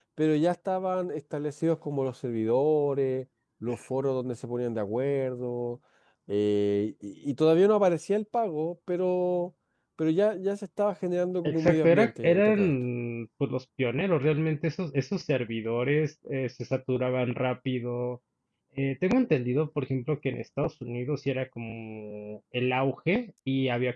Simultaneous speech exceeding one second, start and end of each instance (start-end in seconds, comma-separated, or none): 11.4-12.7